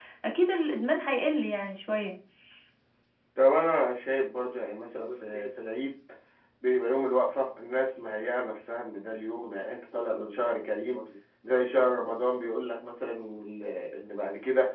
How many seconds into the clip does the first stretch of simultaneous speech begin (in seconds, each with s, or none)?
none